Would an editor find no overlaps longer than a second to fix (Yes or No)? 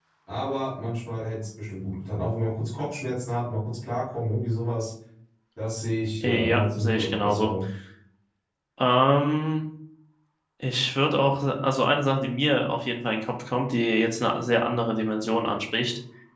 No